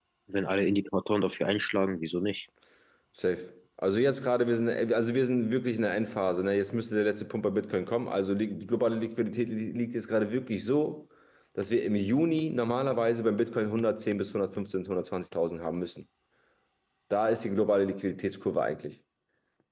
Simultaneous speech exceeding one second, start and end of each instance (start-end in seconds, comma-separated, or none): none